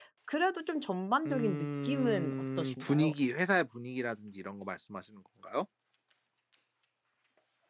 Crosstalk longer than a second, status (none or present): present